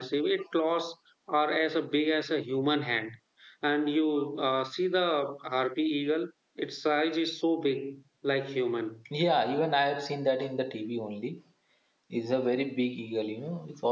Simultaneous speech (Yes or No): No